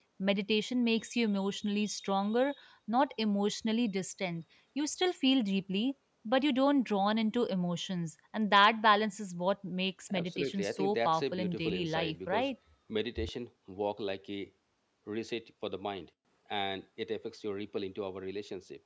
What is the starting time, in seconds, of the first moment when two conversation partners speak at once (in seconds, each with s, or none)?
10.1 s